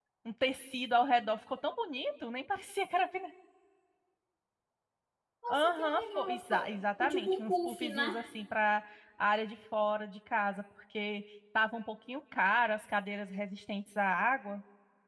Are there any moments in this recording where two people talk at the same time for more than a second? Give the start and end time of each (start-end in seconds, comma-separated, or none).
5.5-8.2